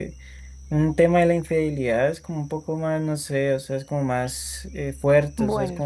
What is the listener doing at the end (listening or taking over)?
listening